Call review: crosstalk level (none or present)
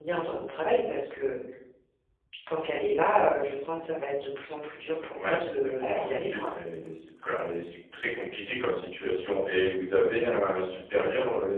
present